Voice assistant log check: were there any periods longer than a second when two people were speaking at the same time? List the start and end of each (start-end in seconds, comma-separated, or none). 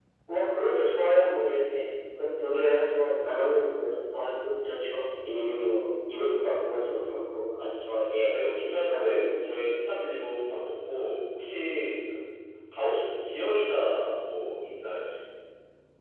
none